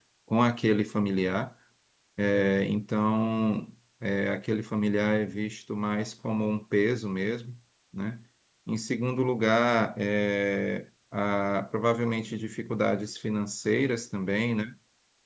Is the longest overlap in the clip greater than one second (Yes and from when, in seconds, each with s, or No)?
No